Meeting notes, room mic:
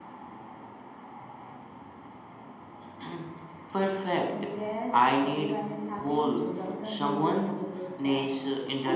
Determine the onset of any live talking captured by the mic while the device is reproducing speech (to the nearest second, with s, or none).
none